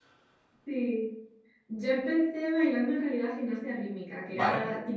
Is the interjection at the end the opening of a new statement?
No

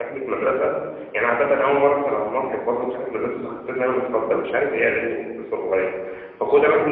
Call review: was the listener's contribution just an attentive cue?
Yes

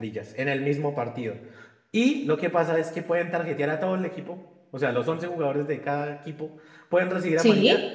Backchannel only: Yes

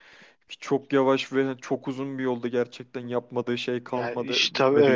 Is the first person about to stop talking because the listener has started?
Yes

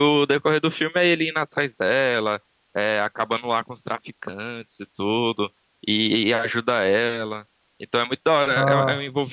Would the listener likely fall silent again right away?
Yes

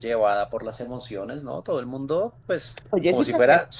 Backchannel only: Yes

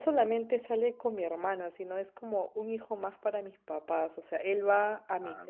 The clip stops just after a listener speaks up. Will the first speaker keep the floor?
Yes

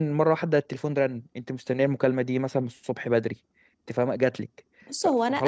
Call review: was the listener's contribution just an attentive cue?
No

